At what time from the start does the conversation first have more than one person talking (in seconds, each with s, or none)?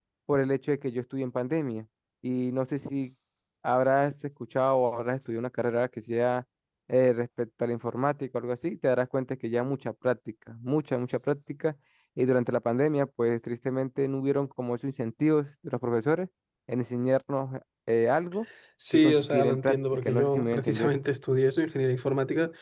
18.9 s